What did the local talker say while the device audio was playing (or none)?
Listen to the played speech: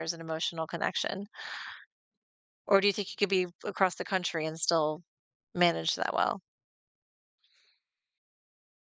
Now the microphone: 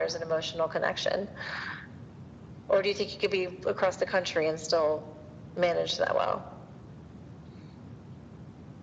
none